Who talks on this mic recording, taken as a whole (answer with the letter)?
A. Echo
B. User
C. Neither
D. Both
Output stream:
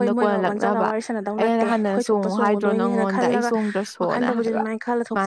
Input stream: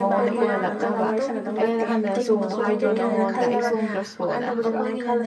D